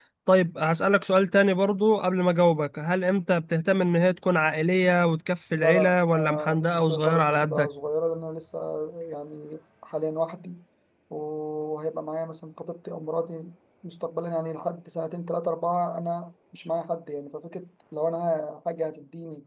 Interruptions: present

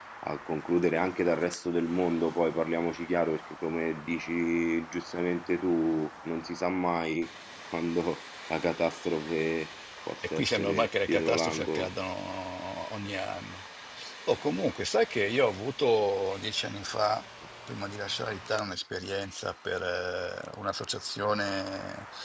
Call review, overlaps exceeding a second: present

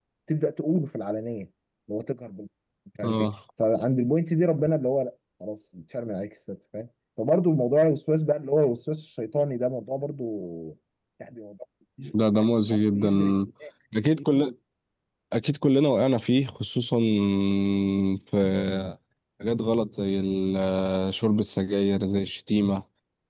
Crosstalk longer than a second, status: none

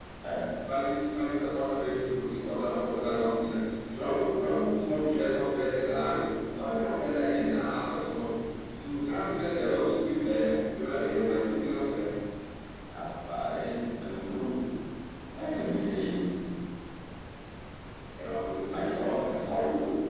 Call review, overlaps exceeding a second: present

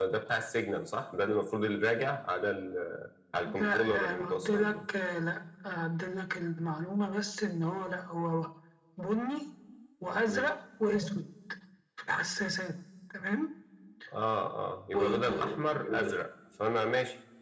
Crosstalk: present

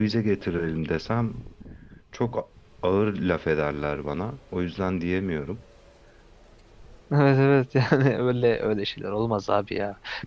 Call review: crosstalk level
none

